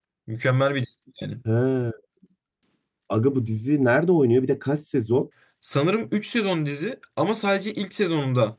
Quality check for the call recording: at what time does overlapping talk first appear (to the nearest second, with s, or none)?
none